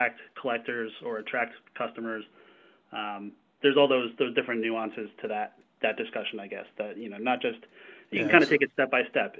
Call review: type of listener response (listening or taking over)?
listening